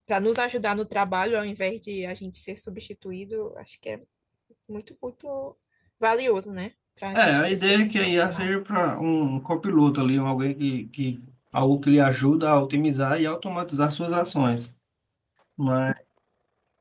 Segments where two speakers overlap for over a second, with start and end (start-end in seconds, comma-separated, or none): 7.1-8.5